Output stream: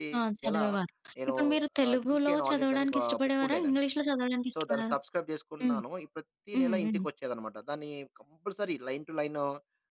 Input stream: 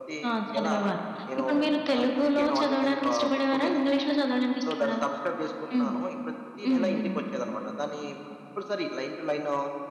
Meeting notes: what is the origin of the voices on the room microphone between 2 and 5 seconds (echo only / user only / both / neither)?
echo only